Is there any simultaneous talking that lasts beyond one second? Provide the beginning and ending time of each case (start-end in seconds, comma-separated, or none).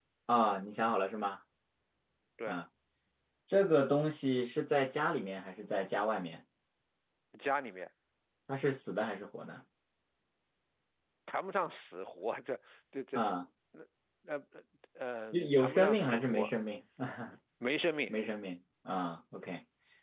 15.3-16.6